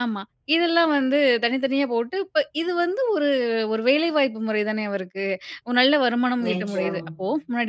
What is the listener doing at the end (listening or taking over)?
listening